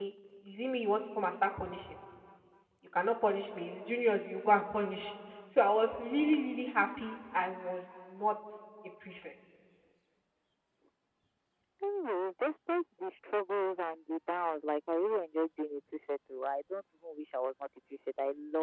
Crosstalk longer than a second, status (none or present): none